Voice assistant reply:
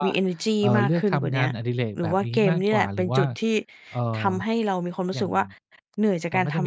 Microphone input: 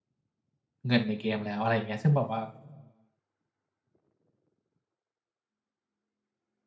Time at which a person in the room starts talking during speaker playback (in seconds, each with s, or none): 0.9 s